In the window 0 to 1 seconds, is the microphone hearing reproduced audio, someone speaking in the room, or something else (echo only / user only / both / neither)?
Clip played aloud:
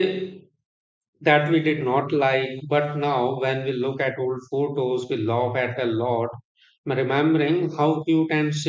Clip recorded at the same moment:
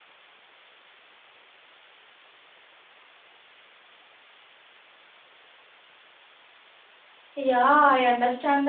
neither